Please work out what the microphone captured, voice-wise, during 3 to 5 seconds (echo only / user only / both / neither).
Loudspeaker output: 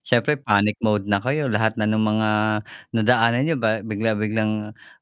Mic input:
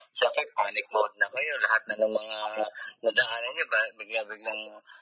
echo only